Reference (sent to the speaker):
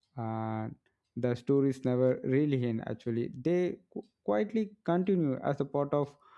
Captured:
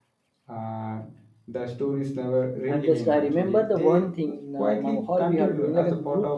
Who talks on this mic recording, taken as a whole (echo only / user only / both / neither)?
both